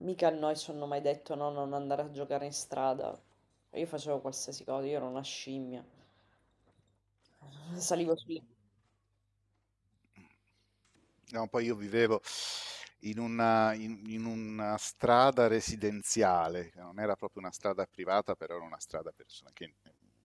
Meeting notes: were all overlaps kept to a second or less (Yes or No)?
Yes